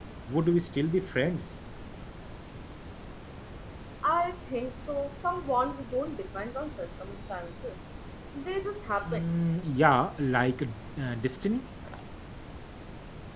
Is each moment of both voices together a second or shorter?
Yes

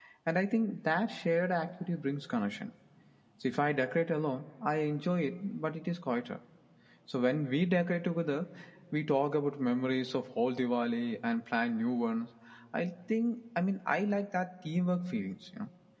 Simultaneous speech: No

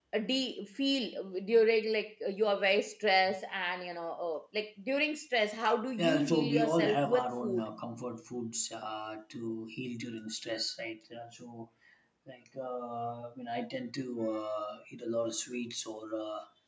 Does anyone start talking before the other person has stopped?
Yes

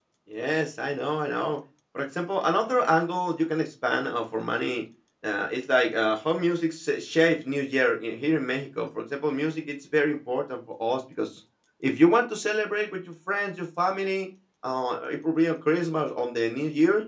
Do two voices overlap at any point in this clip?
No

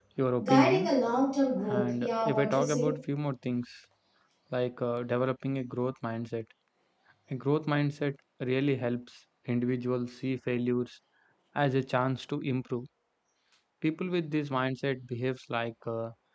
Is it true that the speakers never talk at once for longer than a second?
No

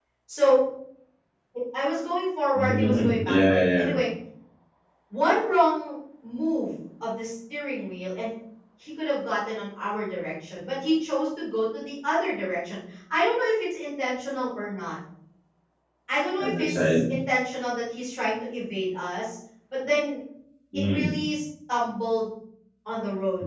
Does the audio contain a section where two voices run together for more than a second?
Yes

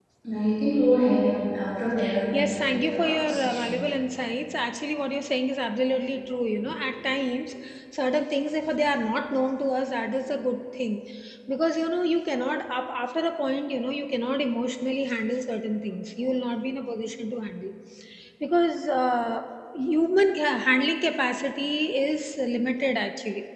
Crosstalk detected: Yes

